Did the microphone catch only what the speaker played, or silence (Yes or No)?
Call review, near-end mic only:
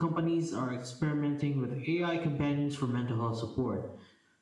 Yes